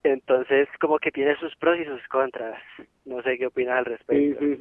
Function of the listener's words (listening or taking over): taking over